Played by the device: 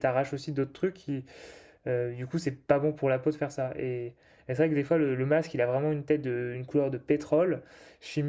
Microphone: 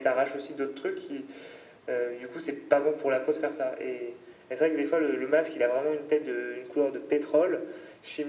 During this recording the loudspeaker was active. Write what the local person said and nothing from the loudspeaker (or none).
none